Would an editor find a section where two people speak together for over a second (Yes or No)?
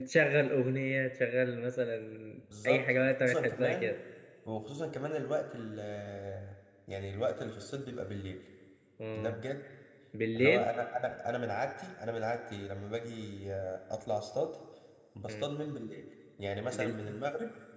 Yes